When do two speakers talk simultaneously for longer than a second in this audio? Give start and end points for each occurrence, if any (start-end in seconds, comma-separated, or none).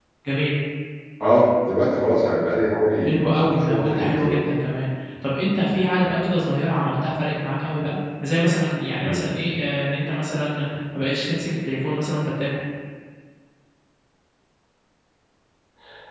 3.0-4.4